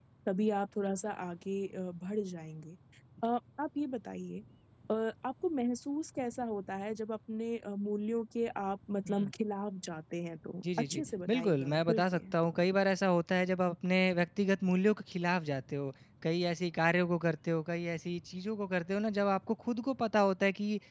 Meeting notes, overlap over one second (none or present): present